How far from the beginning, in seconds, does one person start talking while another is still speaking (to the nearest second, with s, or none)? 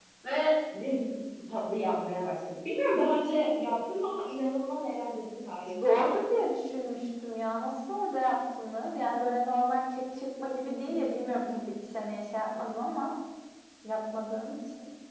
none